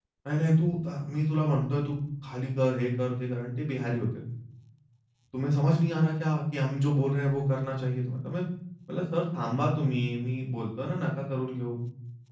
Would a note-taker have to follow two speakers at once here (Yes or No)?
No